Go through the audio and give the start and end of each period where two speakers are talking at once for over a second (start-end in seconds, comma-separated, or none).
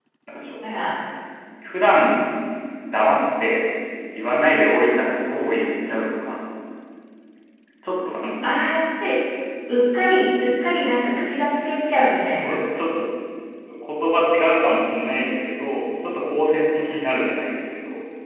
none